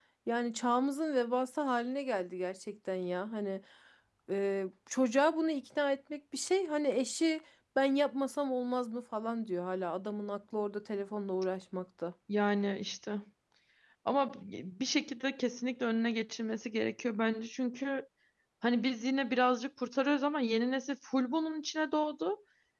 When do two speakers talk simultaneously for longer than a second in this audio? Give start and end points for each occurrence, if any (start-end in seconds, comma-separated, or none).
none